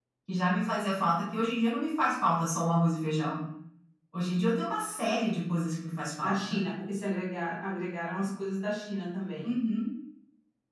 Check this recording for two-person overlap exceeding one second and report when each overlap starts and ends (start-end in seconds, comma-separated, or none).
none